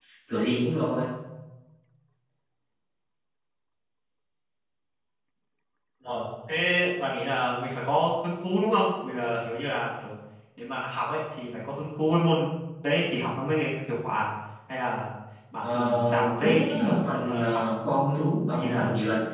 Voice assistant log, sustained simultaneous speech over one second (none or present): present